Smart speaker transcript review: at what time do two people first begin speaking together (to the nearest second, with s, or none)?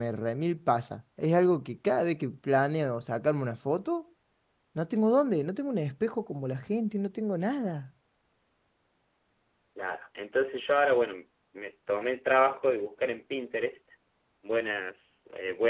none